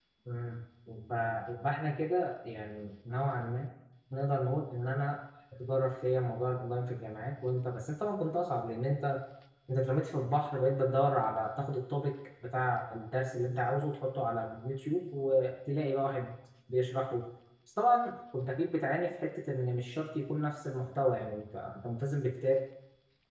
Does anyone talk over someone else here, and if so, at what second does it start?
none

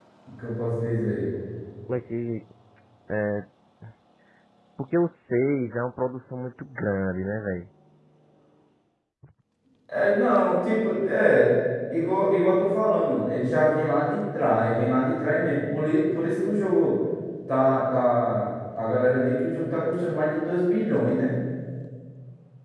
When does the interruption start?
none

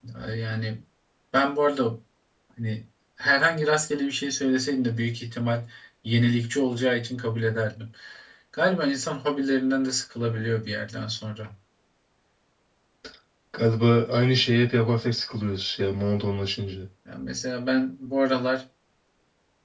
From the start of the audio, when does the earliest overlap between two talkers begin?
none

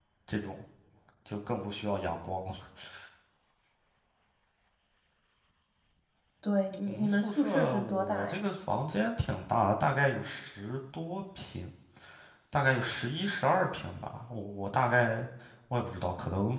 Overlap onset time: 6.9 s

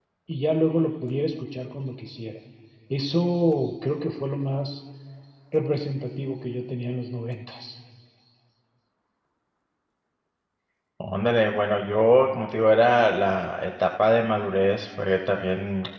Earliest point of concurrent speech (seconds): none

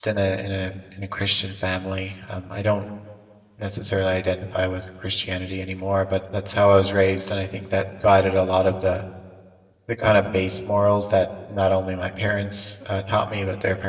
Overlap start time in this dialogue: none

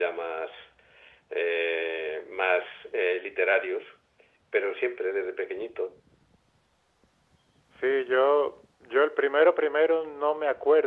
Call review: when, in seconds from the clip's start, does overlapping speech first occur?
none

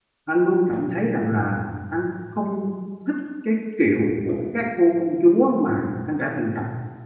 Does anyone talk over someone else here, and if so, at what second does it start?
none

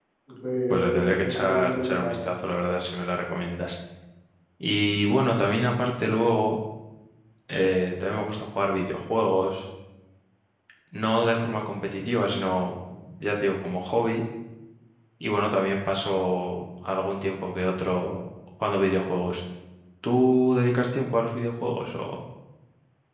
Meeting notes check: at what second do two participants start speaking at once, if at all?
0.7 s

